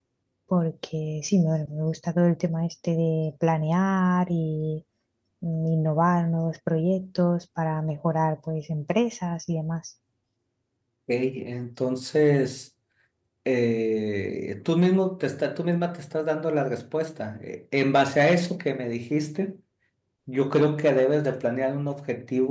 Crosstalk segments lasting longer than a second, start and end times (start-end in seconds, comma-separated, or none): none